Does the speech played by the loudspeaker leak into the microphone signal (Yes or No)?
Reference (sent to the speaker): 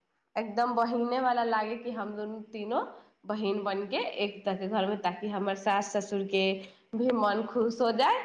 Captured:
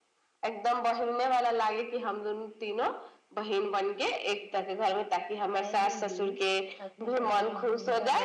Yes